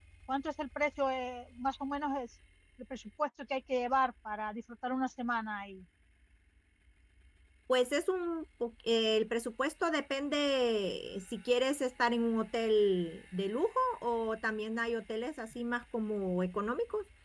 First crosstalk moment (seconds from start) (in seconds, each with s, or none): none